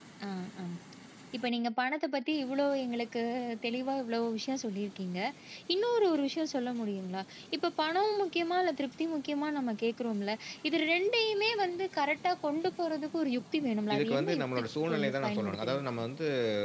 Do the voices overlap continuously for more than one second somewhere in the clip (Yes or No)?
Yes